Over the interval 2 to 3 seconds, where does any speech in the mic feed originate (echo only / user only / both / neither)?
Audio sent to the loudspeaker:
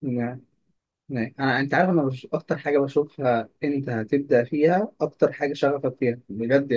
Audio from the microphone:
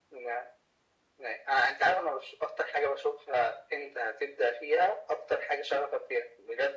echo only